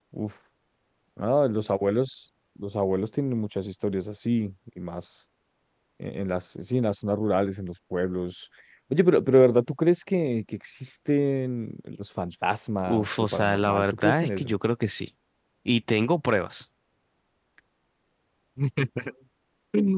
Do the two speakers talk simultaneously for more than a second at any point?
Yes, from 12.9 s

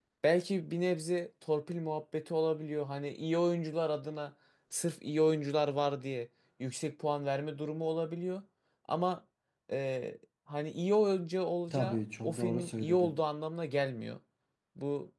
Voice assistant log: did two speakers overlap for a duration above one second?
Yes, from 11.7 s

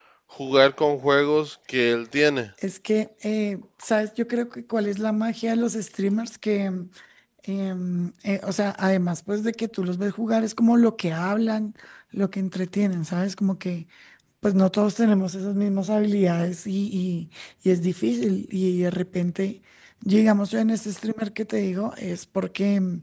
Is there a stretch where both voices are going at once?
No

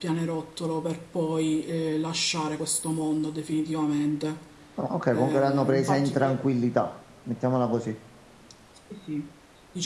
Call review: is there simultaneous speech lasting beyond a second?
Yes, from 5.1 s

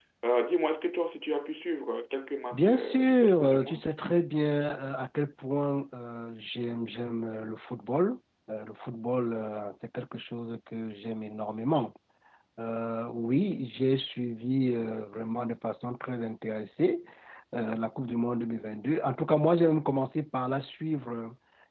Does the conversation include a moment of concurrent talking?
Yes, from 2.5 s

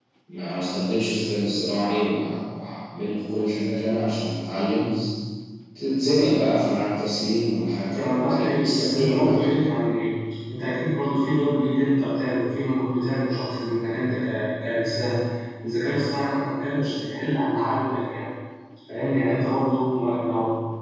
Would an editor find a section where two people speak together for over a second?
Yes, from 7.9 s

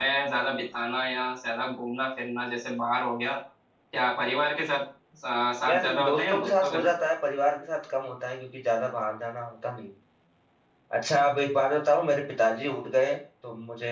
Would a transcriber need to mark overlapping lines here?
Yes, from 5.6 s

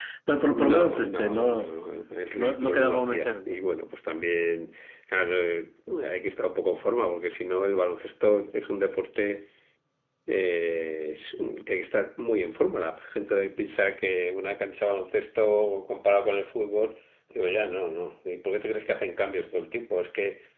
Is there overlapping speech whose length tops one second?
Yes, from 0.5 s

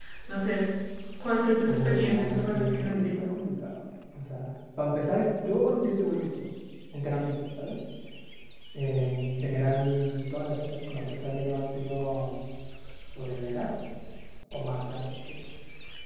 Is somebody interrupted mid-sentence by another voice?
Yes, from 1.6 s

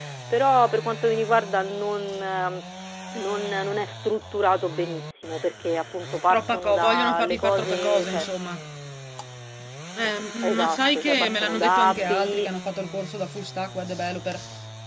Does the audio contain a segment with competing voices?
Yes, from 6.3 s

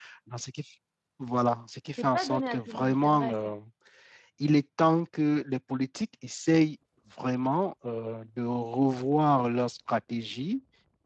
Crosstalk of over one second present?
Yes, from 2.0 s

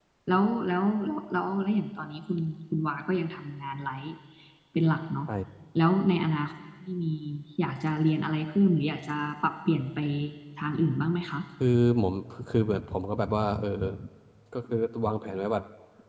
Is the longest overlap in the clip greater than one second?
No

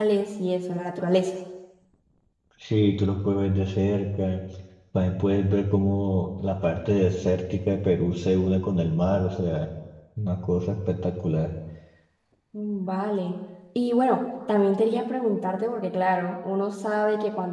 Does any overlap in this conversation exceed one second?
No

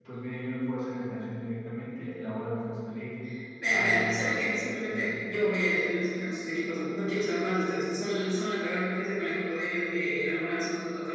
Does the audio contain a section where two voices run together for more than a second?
Yes, from 3.7 s

